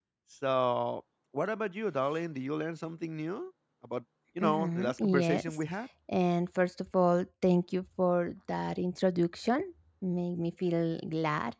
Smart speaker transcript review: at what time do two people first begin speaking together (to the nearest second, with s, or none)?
4 s